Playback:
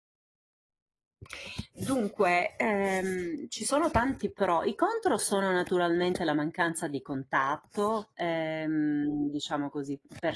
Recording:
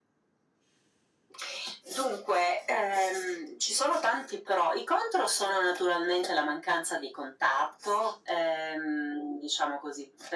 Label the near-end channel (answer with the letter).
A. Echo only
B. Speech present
A